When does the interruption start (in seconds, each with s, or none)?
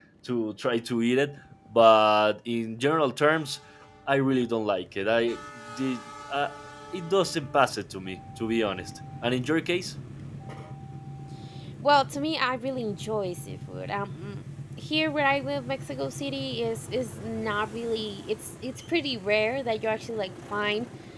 none